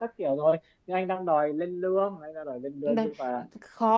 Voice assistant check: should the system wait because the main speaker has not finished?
No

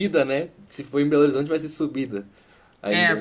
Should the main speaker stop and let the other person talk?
Yes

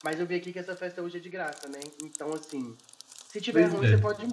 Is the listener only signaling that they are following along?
Yes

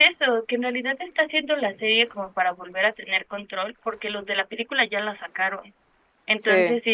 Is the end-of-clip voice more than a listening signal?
No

